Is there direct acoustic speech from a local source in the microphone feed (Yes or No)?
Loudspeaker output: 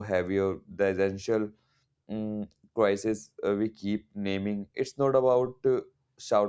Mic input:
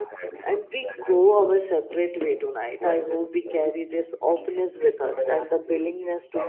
Yes